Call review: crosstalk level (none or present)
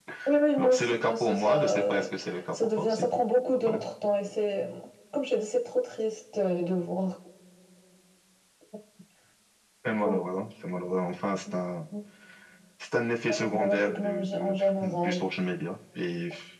present